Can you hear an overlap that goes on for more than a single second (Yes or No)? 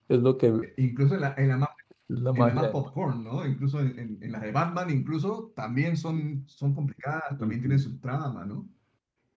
No